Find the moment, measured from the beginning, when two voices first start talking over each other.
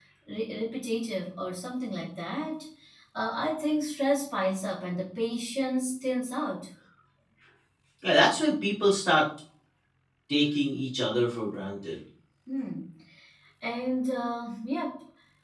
none

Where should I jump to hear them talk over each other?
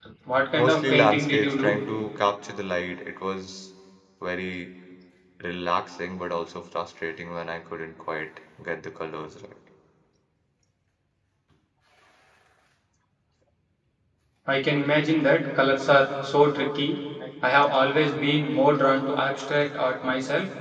1 s

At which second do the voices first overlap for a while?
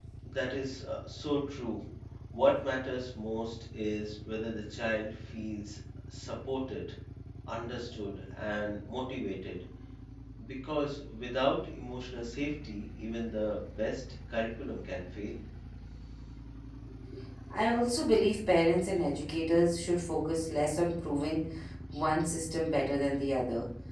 none

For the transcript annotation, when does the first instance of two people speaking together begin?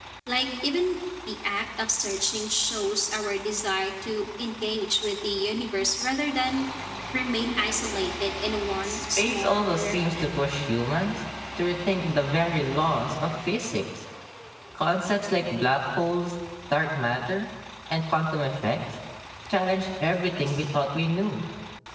9 s

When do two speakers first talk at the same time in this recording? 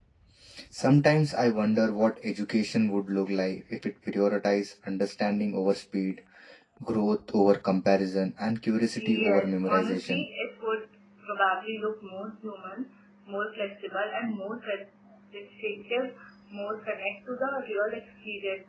9 s

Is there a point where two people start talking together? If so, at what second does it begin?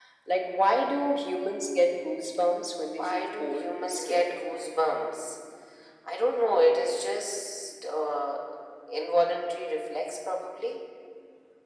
3 s

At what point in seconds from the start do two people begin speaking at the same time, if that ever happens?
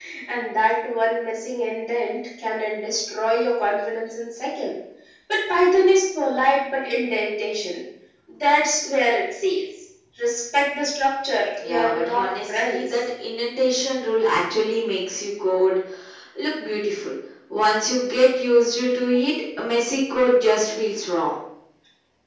12 s

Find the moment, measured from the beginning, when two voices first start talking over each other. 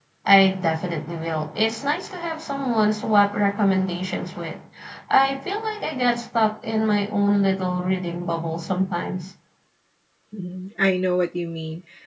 none

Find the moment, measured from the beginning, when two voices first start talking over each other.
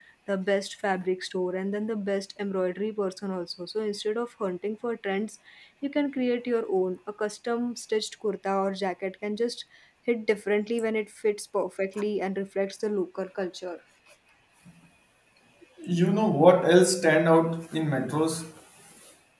none

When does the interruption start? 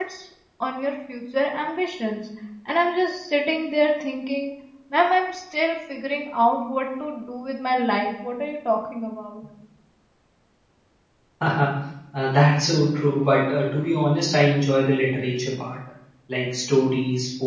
none

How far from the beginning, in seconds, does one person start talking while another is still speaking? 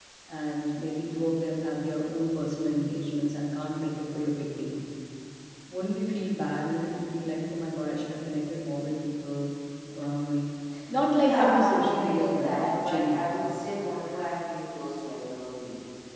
11 s

